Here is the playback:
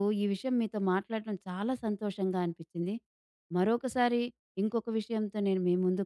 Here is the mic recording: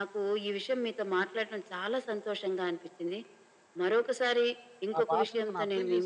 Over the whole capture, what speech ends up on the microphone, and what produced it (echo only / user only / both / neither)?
both